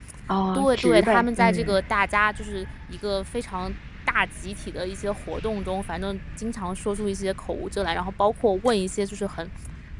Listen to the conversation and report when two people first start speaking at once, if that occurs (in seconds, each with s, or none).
0.5 s